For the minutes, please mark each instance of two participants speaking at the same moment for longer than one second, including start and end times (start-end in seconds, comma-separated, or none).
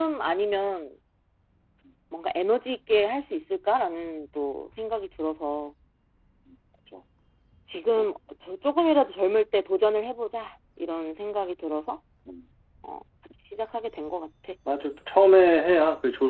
none